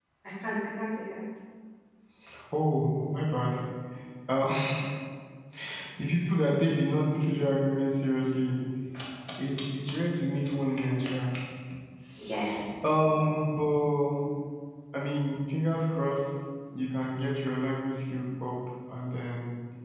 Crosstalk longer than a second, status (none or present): none